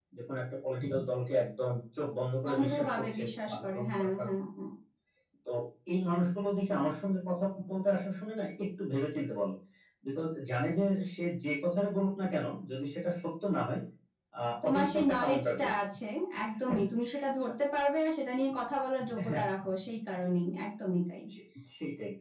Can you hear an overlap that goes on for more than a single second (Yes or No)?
Yes